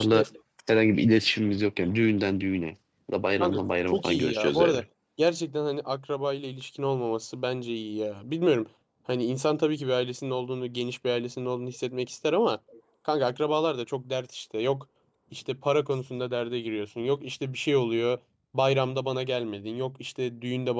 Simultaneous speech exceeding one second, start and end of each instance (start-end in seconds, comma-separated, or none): 3.4-4.8